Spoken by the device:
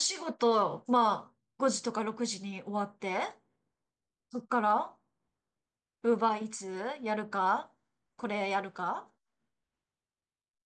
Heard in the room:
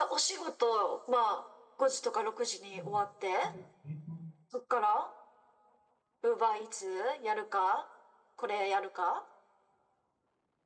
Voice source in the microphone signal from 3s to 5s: both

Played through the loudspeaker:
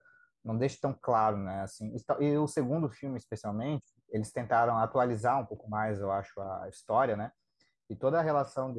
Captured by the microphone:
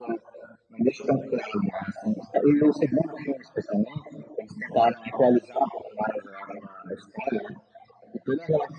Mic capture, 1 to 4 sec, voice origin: echo only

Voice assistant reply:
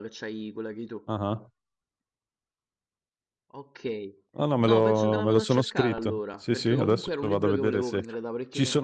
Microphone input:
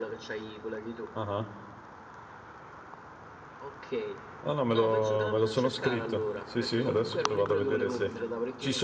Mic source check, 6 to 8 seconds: echo only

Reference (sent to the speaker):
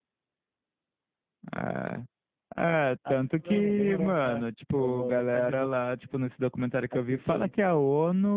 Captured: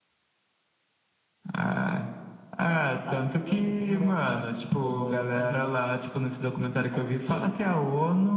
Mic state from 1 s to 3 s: echo only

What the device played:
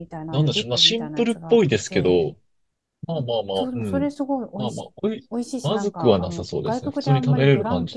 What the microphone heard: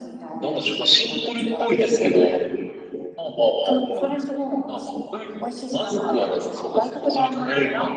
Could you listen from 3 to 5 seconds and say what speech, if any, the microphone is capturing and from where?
echo only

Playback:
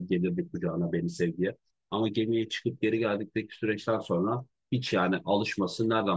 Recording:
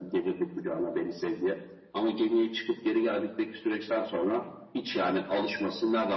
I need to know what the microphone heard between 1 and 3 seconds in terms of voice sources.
echo only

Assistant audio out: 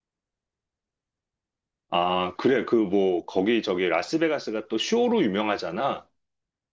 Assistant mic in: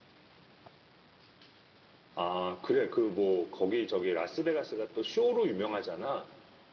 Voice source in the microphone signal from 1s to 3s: echo only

